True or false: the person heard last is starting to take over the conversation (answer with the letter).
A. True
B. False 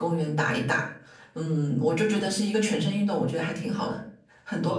A